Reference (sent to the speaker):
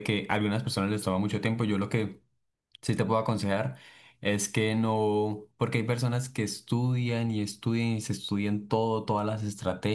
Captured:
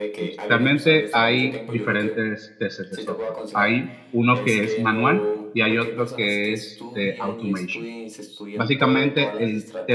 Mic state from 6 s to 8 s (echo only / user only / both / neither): both